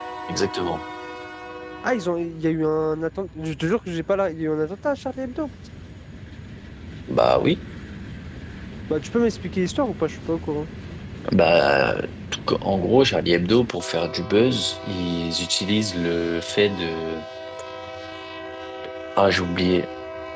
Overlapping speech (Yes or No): No